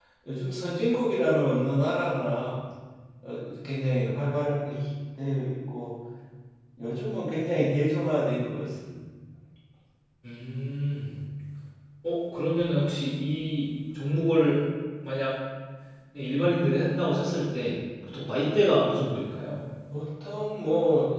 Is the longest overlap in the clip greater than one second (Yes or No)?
No